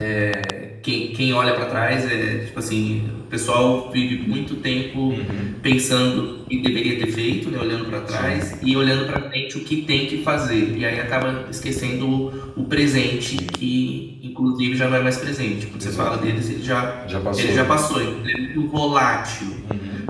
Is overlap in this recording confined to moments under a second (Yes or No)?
Yes